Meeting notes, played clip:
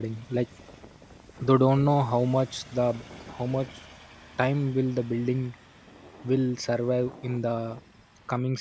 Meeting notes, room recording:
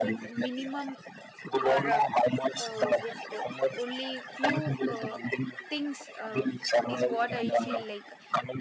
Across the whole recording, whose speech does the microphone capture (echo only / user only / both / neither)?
both